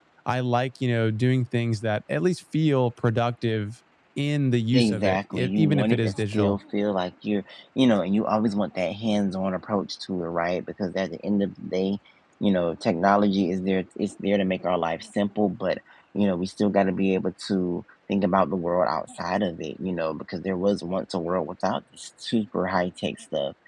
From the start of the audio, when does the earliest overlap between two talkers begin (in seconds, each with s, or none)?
4.7 s